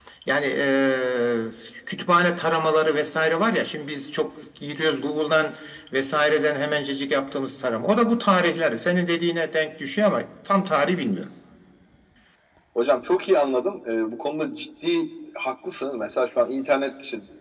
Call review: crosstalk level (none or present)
none